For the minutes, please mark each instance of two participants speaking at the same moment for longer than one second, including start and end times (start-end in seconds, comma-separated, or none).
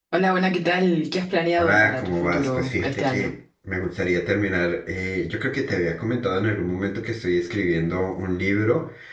1.6-3.3